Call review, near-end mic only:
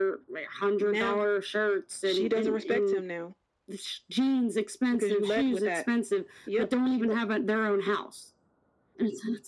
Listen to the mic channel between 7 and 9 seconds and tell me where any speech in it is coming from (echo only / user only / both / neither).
echo only